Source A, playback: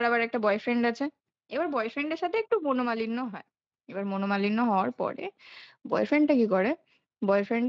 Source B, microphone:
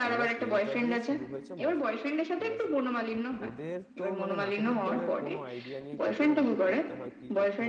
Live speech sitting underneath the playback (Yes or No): Yes